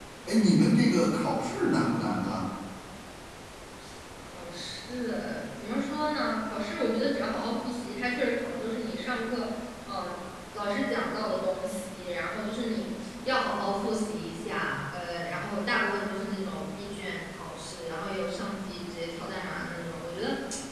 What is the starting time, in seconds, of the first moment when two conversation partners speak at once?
none

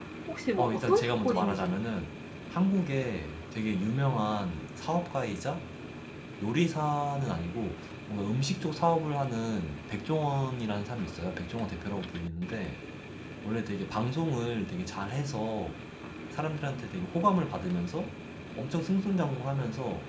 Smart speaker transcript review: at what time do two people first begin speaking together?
0.6 s

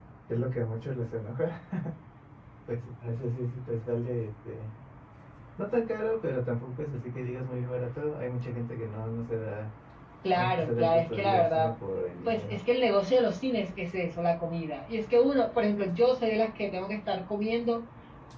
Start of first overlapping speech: 10.3 s

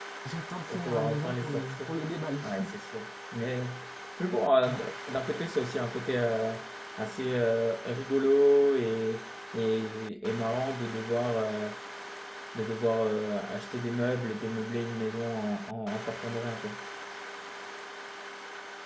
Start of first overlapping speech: 0.7 s

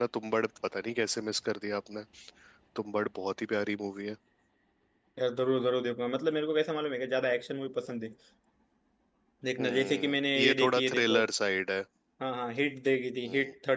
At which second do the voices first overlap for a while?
9.6 s

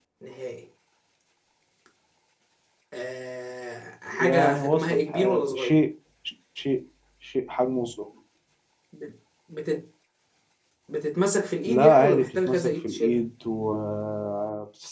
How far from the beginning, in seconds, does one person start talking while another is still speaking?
4.2 s

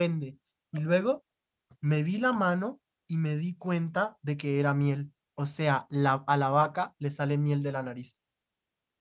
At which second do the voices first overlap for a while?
none

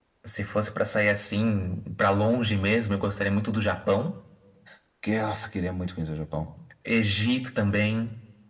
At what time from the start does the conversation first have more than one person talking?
none

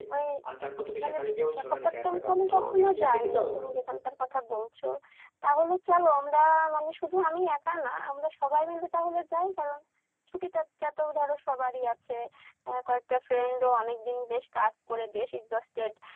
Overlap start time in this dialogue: 1.0 s

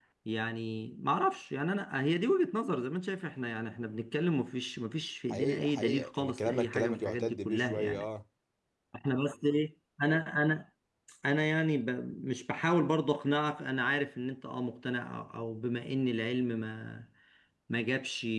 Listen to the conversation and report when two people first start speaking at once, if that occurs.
5.3 s

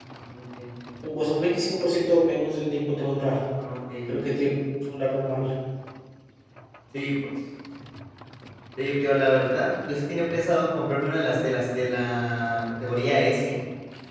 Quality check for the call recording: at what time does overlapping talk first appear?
none

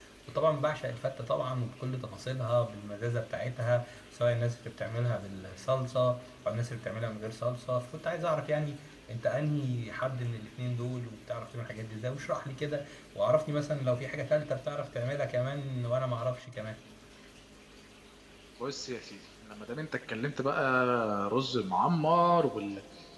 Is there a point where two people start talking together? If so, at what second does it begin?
none

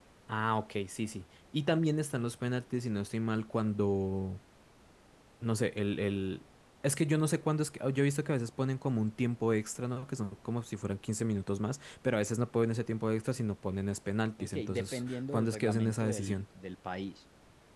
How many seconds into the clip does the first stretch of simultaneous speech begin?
14.4 s

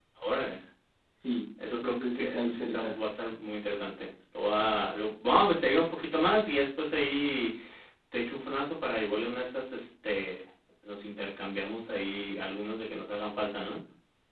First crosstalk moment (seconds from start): 1.7 s

